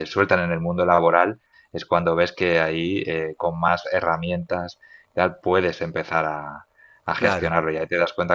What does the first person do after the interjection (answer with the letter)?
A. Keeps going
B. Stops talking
A